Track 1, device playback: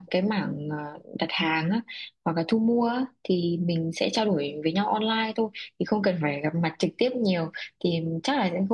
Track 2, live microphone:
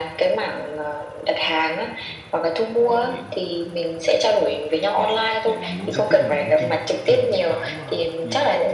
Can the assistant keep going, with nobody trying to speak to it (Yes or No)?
No